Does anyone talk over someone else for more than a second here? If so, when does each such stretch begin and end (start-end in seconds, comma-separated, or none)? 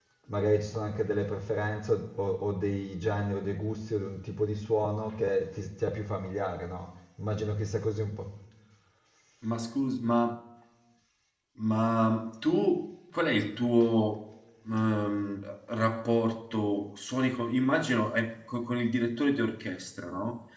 none